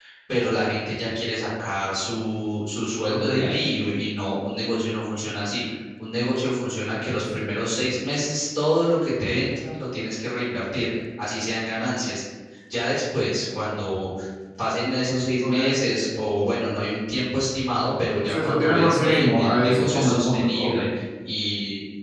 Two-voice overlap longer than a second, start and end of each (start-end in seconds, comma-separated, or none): 18.2-20.8